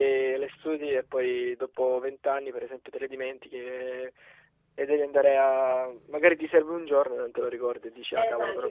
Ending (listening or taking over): taking over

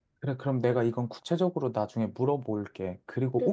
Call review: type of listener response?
taking over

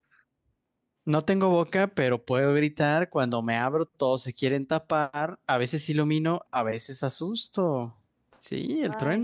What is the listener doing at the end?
taking over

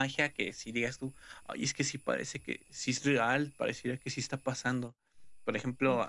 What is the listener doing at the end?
listening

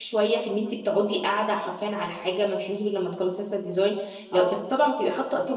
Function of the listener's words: listening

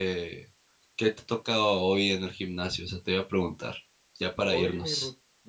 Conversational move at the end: taking over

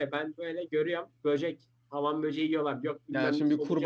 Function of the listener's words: taking over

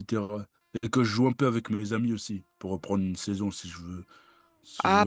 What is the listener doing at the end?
taking over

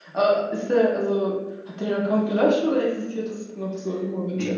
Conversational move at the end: taking over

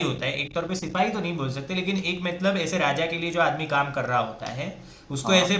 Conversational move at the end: listening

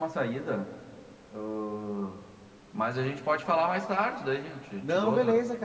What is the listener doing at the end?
taking over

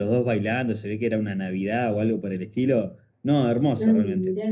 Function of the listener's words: taking over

